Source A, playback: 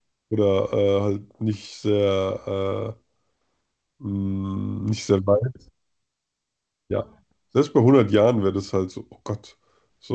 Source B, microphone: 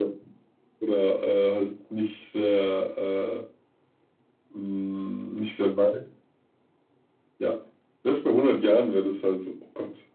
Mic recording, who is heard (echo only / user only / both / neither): echo only